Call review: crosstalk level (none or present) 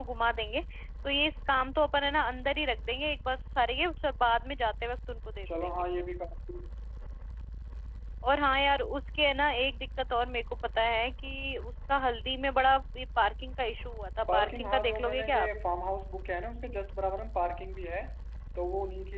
present